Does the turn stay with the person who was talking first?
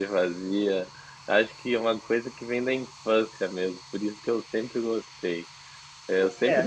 Yes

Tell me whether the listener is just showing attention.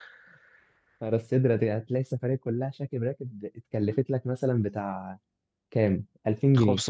No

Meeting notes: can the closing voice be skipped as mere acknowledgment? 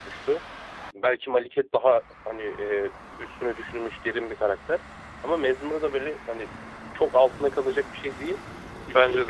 Yes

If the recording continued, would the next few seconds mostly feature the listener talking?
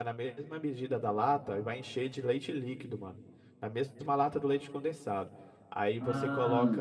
No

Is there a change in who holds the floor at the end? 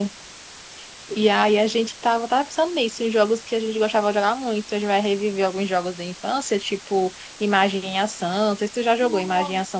Yes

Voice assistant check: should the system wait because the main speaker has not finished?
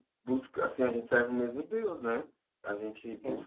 Yes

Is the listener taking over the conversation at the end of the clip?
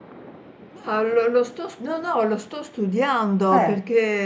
No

